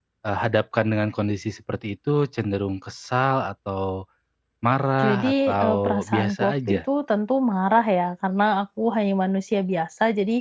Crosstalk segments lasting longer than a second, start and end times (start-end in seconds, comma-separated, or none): 5.0-6.8